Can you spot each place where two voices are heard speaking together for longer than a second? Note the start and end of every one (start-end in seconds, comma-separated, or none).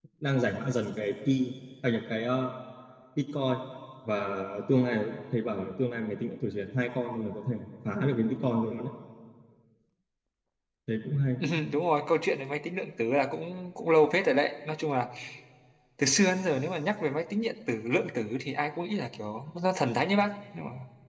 none